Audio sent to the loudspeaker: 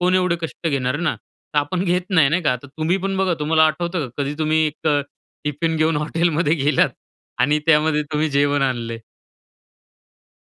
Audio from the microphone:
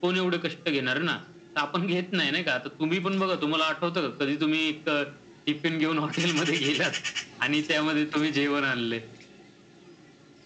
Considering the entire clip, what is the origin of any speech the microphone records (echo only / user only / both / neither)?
echo only